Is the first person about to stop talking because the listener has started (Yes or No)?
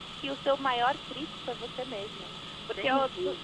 No